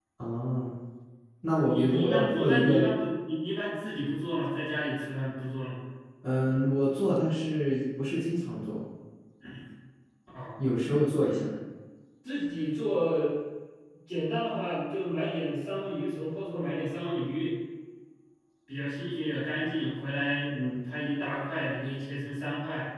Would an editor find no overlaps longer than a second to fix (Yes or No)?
No